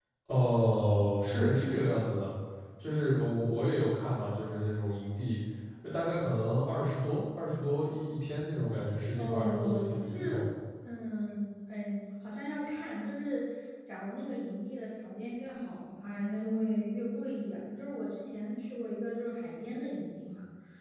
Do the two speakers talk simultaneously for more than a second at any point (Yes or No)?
Yes